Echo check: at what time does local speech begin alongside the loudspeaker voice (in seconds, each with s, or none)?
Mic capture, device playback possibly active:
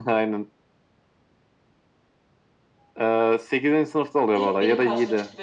4.3 s